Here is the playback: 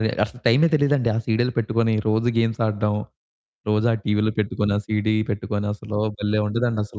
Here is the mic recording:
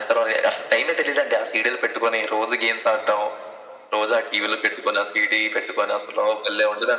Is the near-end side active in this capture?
No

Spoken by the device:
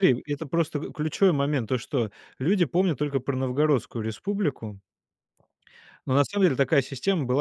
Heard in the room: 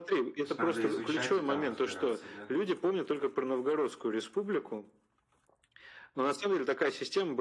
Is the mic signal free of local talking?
No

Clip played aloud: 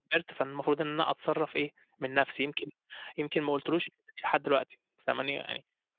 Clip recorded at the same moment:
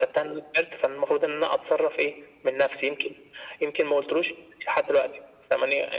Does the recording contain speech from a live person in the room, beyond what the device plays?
No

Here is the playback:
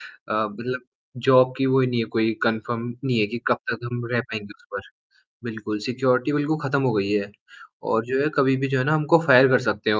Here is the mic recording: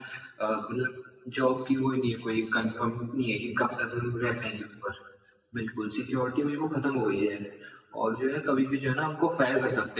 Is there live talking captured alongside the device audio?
No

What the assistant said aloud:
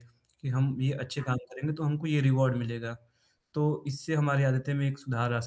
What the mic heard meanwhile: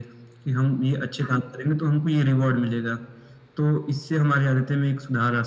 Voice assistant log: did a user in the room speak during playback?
No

